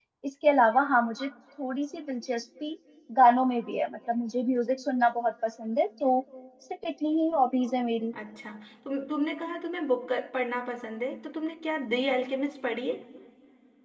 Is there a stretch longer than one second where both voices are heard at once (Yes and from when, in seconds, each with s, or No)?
No